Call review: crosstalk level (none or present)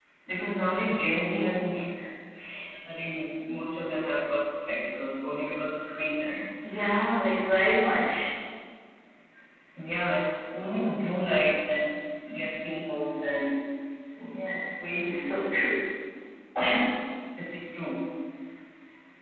none